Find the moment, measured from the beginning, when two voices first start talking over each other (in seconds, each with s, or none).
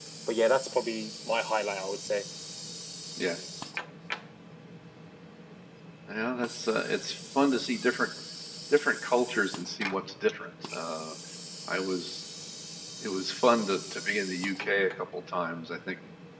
none